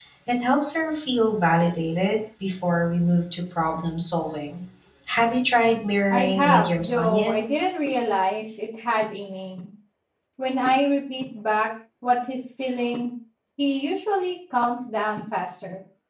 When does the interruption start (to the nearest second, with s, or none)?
6 s